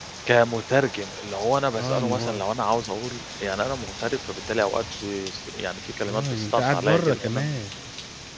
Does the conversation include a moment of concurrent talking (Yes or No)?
Yes